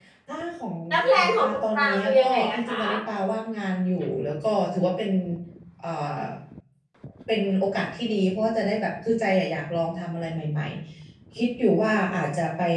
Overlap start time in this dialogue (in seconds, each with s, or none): 1.2 s